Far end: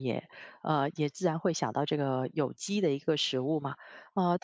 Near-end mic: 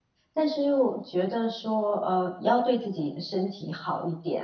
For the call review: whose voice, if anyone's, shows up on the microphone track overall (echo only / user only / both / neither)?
user only